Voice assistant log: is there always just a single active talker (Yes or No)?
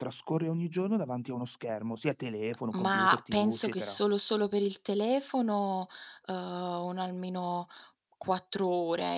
No